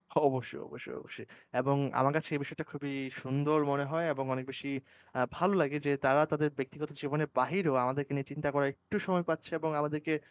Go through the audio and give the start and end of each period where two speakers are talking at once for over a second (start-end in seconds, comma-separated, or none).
none